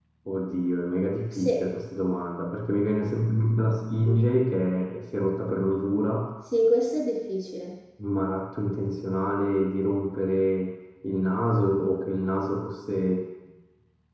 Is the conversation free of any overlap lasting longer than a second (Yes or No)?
Yes